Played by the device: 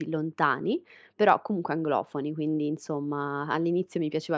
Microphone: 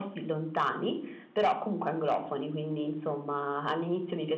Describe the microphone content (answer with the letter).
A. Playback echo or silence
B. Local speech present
A